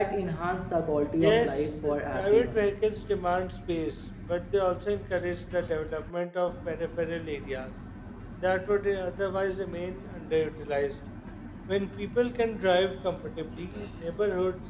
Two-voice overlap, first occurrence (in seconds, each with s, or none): 1.2 s